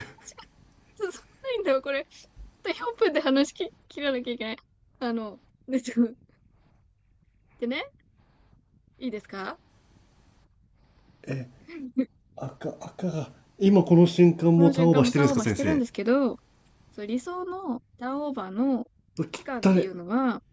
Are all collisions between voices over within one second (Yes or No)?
No